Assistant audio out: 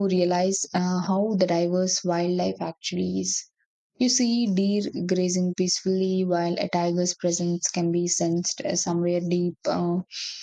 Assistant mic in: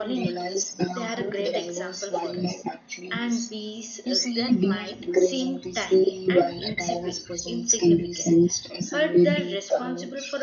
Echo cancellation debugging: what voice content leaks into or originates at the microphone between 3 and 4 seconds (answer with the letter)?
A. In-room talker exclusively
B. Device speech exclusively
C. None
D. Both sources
D